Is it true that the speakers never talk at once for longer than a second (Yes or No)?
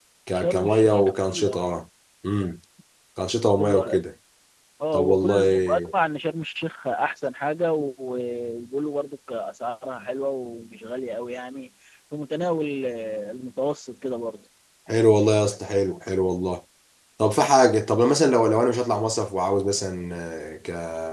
No